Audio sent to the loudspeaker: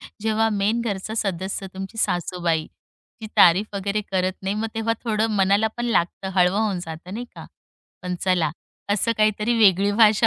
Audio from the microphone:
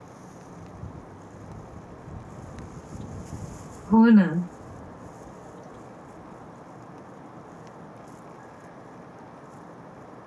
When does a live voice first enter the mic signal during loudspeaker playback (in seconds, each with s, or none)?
3.9 s